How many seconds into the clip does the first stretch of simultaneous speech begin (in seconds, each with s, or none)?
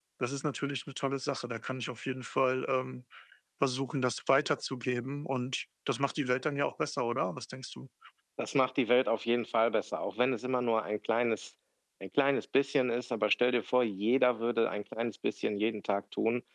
none